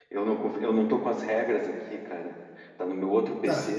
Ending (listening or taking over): taking over